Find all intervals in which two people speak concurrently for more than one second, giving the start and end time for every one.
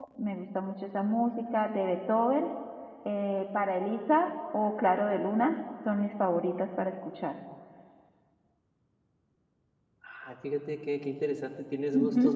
none

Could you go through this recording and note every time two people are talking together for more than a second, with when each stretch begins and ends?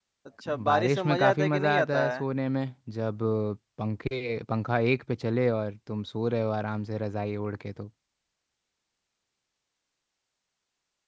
0.6-2.2

